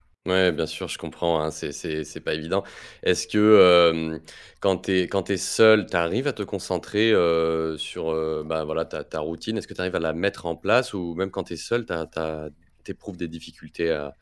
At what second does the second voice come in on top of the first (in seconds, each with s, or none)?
none